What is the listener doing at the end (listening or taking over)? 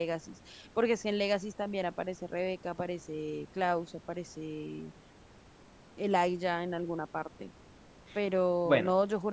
listening